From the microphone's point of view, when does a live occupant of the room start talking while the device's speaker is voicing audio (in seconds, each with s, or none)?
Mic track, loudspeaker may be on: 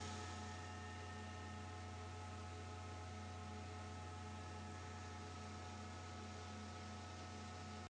none